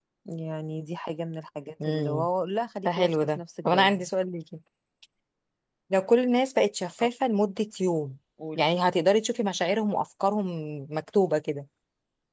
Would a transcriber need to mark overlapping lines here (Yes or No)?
Yes